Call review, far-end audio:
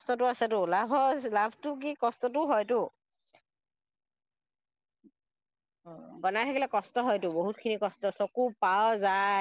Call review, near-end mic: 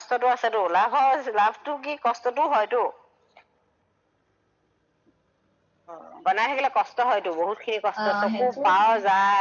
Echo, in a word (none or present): present